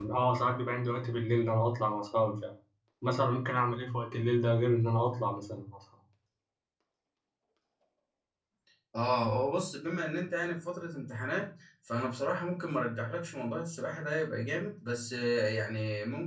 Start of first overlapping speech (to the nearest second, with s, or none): none